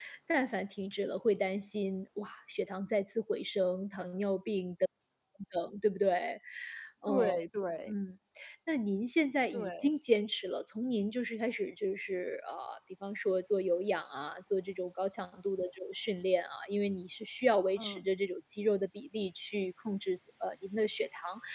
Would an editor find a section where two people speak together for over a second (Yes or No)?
No